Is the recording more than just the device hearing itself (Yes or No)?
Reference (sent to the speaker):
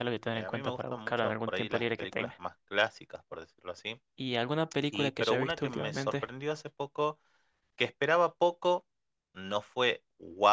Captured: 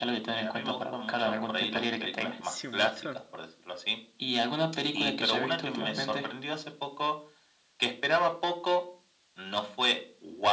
Yes